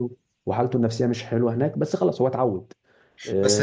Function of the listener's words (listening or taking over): taking over